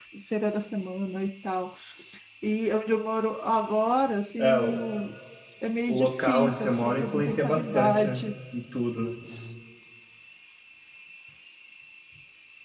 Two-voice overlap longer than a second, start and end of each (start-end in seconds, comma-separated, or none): 5.9-8.2